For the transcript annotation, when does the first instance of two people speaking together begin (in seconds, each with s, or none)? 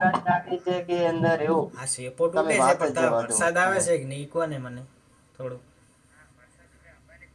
2.4 s